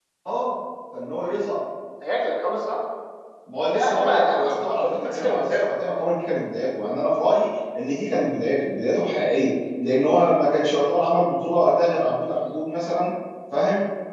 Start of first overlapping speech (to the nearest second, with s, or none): 4 s